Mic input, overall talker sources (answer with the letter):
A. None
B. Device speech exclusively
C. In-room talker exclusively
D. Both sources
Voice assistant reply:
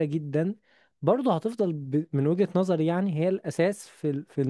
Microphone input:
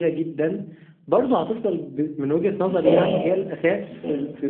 D